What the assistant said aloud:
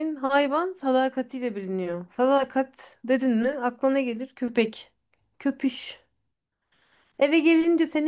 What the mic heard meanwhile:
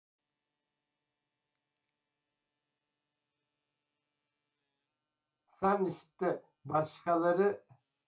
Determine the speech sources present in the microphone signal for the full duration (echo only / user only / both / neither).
user only